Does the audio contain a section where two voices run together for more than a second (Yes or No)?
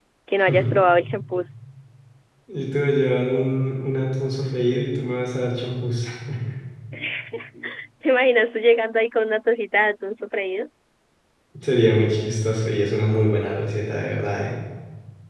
No